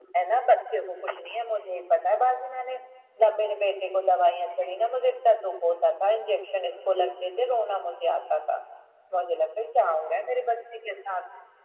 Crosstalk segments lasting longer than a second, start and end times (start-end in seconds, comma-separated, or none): none